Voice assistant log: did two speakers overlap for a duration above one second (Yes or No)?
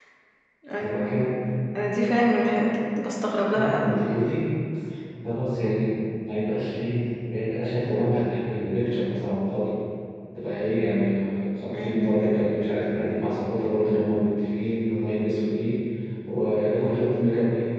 No